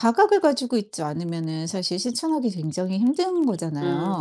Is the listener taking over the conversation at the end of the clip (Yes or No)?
Yes